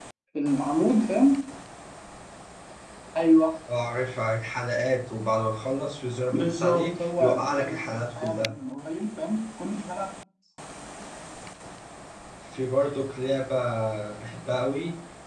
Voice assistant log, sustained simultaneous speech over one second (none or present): present